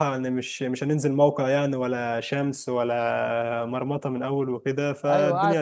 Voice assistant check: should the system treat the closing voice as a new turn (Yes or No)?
Yes